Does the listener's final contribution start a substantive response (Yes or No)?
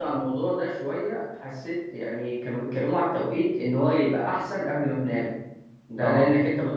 No